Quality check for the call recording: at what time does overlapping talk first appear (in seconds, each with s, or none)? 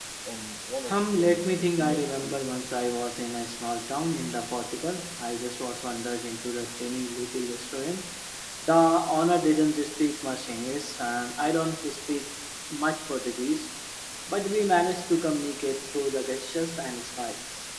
0.9 s